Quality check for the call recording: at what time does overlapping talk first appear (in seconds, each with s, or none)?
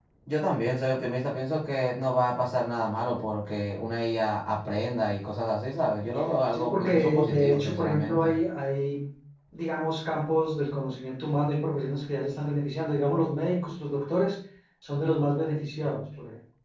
6.5 s